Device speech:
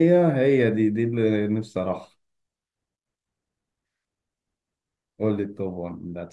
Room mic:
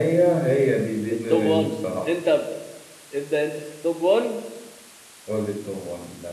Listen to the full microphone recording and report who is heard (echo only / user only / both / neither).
both